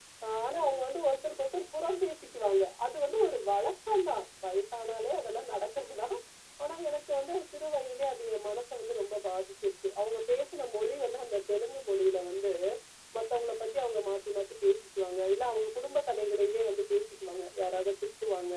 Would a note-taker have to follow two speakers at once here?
No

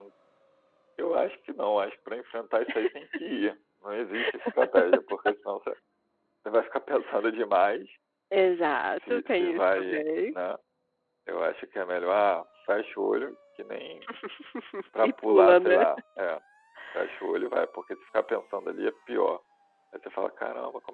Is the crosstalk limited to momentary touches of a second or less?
No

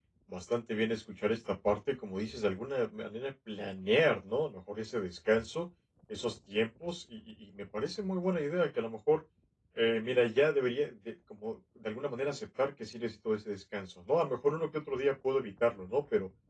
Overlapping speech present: No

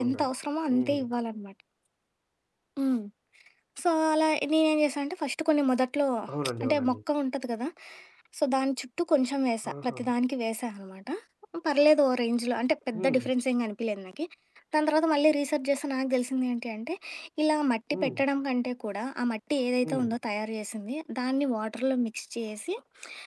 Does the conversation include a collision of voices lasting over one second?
No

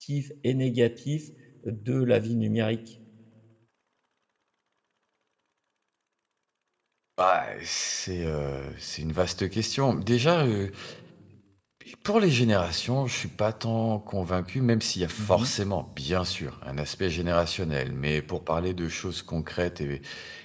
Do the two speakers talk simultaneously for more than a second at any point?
No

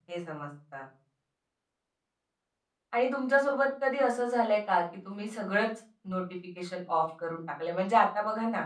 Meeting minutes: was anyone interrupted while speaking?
No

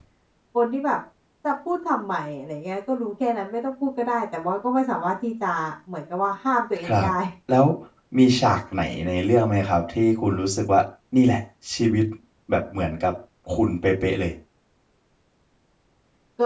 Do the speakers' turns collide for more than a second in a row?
No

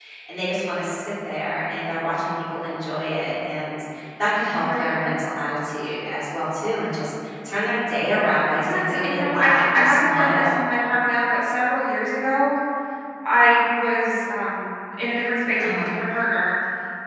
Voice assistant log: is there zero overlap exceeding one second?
No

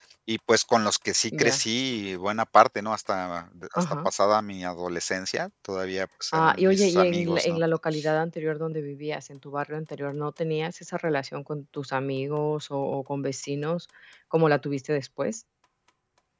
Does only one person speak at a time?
No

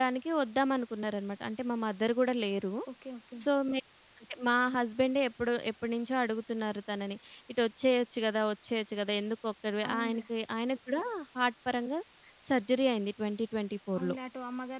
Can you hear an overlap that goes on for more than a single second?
No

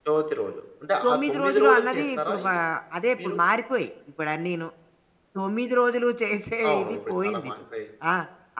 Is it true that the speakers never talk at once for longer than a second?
No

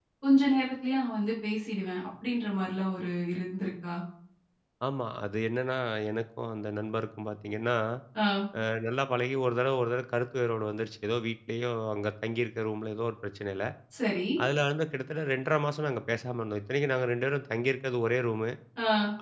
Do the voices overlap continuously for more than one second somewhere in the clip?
No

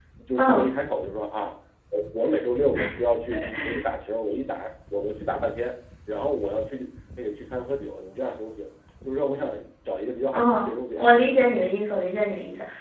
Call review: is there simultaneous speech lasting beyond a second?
Yes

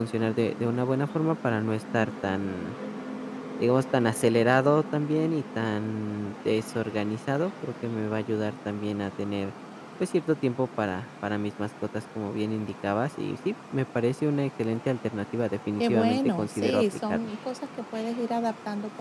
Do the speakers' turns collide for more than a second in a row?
Yes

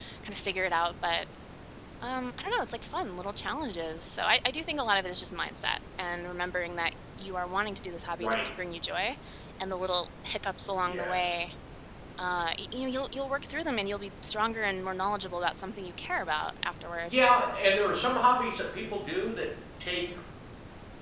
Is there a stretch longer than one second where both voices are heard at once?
No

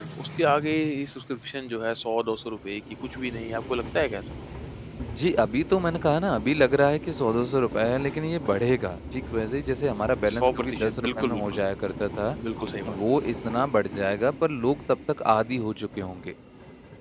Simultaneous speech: Yes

